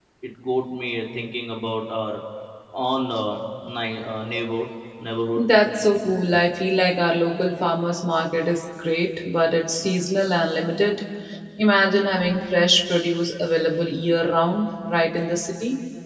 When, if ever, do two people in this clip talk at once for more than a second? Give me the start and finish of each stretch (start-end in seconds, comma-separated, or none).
none